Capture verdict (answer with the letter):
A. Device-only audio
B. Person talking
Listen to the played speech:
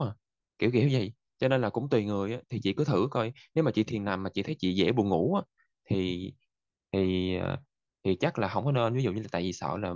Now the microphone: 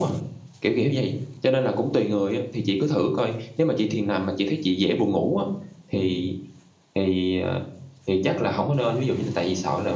A